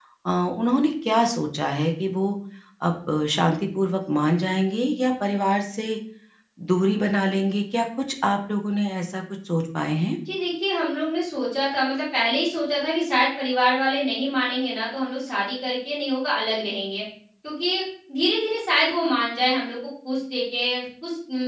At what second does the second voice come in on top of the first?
none

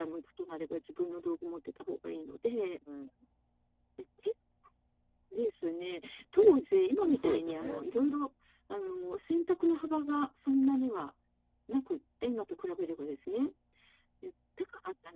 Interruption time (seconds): 7 s

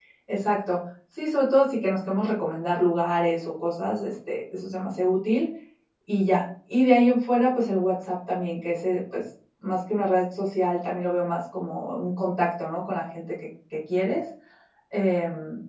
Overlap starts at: none

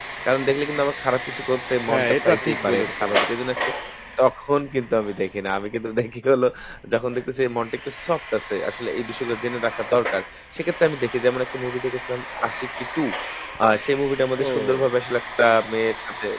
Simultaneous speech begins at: 2 s

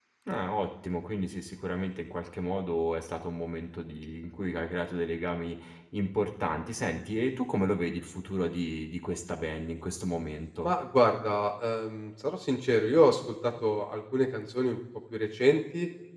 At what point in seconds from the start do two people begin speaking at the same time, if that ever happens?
none

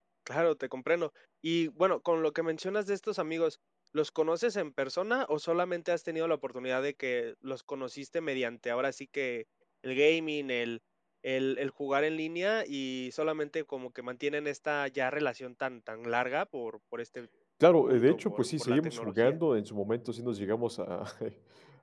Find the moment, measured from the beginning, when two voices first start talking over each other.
18 s

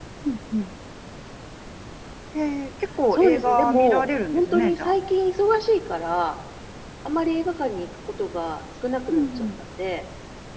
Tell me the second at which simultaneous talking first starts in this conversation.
3 s

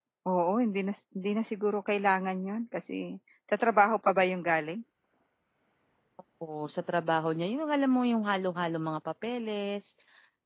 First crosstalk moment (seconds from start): none

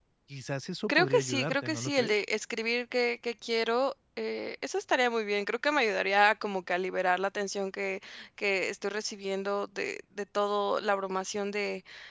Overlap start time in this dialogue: 1 s

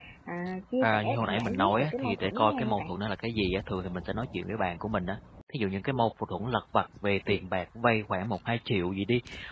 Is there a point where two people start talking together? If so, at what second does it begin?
1 s

